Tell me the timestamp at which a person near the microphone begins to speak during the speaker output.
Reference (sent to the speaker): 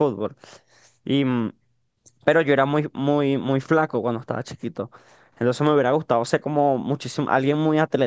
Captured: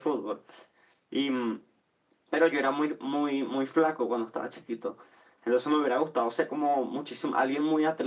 none

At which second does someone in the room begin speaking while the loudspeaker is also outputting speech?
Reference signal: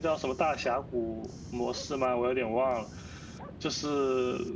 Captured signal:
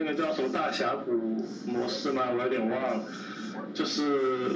none

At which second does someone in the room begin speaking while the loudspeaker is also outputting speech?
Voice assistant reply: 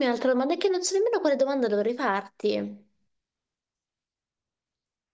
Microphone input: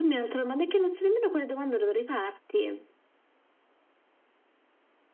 none

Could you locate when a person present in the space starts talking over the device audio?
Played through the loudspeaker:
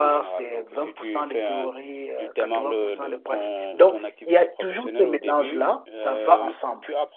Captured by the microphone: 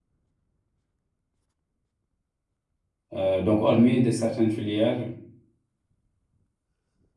3.1 s

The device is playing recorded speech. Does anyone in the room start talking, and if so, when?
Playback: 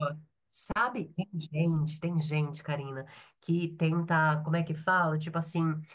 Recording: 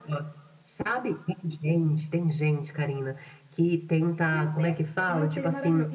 4.3 s

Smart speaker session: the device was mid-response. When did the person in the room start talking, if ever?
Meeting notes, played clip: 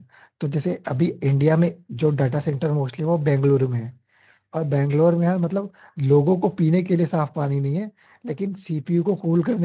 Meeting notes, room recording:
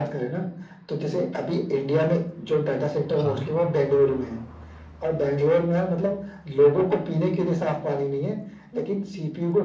3.2 s

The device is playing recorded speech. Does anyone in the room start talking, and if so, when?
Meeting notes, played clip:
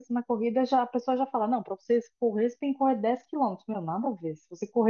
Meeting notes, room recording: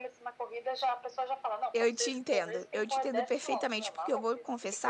1.7 s

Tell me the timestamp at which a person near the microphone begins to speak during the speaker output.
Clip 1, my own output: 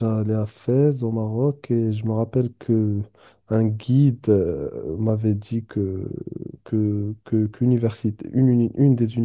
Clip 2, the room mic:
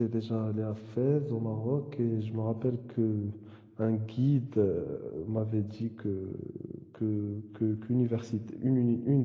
none

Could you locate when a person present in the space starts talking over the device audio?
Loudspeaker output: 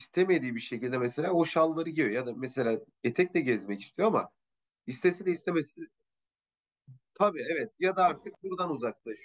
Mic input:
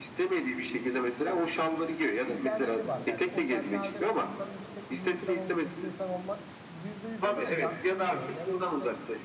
2.3 s

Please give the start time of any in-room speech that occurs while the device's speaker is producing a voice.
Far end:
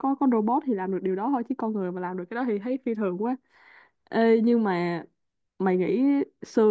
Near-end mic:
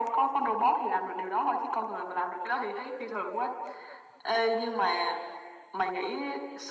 none

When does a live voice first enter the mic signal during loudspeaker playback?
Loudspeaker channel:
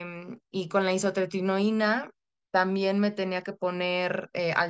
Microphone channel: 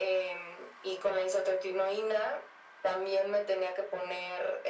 none

